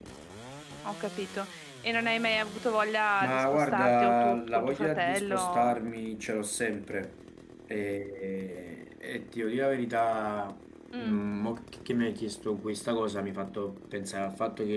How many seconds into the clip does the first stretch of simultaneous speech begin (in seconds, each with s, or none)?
3.2 s